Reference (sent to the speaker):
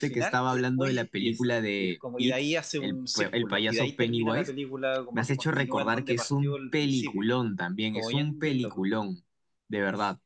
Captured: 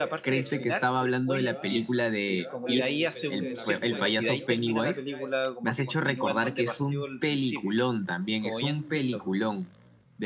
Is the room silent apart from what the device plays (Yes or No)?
No